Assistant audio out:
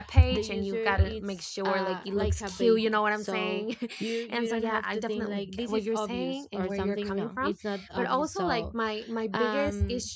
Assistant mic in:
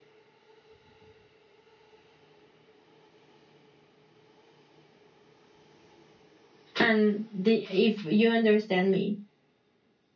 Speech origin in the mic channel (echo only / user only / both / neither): user only